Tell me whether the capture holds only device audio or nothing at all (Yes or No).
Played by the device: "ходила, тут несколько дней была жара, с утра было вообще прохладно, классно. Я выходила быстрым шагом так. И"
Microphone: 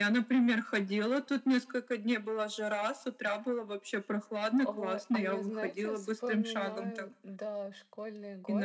No